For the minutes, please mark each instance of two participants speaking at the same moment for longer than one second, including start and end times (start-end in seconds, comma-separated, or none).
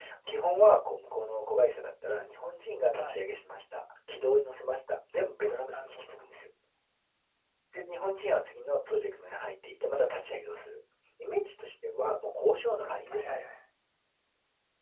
none